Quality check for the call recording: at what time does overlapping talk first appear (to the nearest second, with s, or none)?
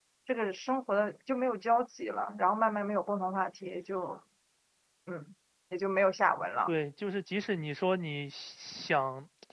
none